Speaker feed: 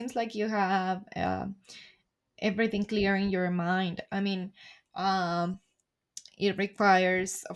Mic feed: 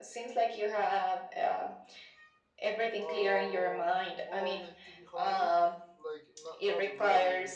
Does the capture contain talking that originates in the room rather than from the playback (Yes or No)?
Yes